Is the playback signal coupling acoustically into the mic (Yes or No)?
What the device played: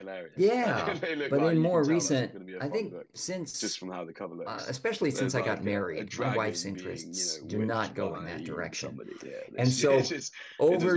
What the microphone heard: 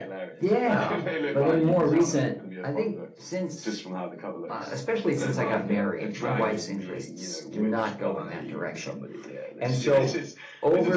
Yes